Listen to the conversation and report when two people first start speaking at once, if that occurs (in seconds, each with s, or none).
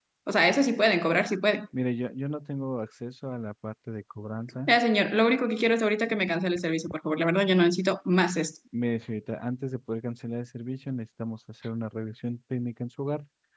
none